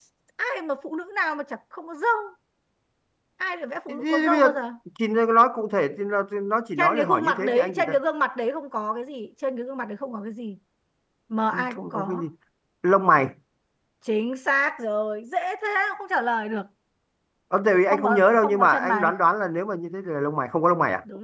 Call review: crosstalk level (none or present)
present